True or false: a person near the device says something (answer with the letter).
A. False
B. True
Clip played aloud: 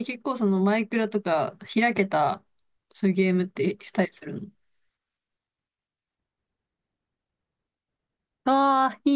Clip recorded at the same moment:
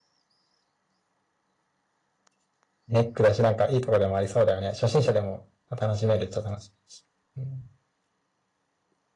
B